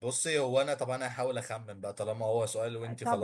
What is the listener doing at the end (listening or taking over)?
taking over